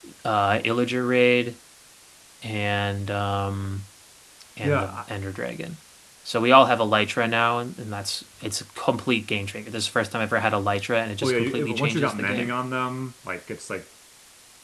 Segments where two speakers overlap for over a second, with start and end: 11.2-12.5

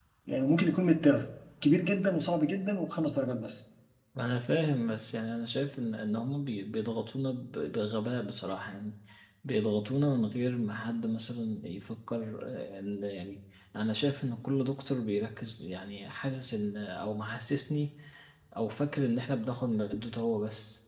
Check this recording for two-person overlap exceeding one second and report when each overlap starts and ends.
none

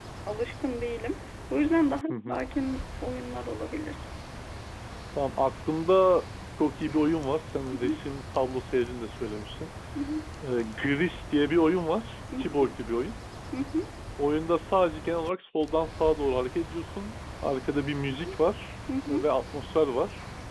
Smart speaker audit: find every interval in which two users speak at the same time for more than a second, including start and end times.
none

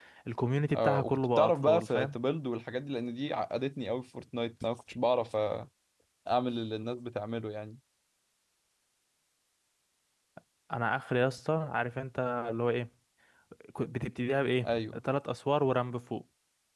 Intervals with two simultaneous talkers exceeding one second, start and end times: 0.7-2.1

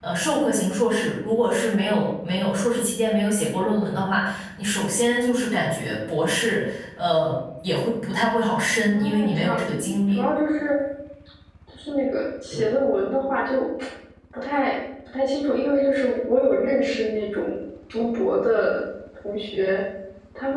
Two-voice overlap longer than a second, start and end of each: 8.8-10.2

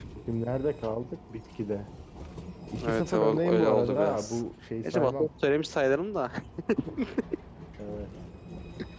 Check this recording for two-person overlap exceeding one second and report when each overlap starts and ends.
2.9-4.4

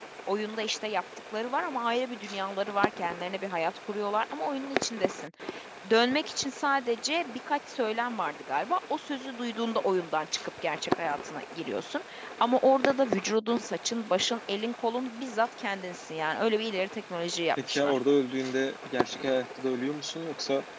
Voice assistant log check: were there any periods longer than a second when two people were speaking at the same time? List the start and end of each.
none

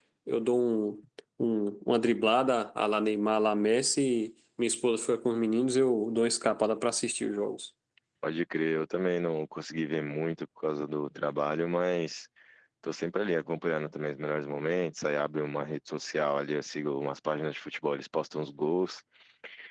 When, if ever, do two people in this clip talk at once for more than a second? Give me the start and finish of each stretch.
none

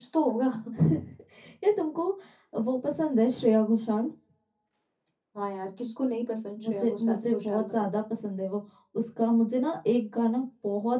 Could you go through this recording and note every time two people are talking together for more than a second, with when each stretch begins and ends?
6.7-7.9

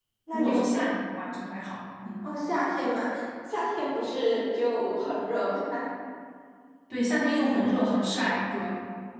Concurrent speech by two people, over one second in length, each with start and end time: none

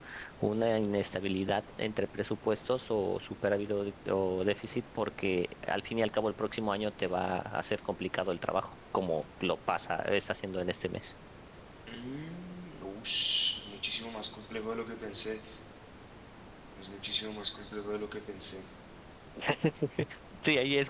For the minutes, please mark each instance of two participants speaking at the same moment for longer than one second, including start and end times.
none

